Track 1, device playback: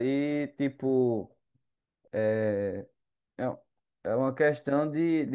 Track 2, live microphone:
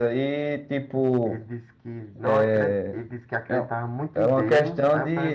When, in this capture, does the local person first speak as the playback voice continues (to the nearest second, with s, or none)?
1 s